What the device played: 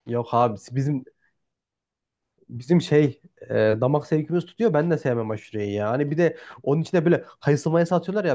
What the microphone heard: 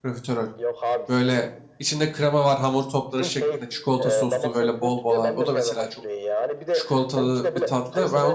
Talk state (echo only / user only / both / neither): both